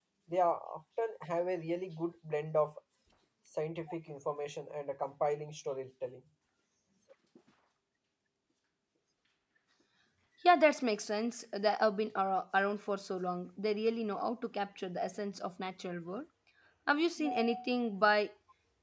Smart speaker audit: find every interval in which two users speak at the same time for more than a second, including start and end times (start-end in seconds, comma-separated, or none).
none